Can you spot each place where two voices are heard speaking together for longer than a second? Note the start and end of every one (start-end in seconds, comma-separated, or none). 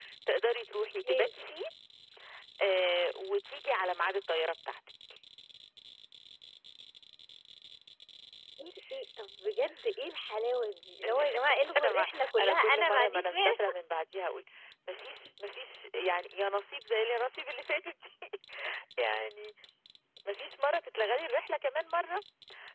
11.8-13.5